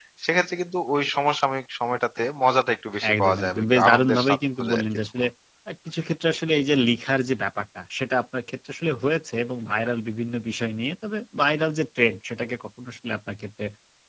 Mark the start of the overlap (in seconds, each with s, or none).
3.0 s